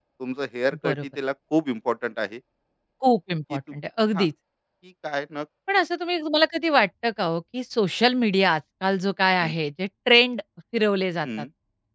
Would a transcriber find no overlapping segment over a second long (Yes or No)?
Yes